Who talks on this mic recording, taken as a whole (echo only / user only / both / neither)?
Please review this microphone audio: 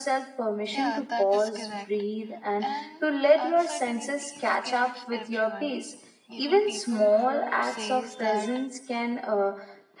both